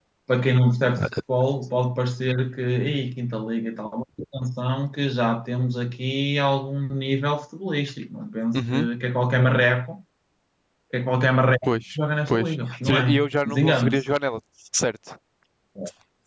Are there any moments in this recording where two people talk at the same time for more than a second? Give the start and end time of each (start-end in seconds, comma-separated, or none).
12.3-14.0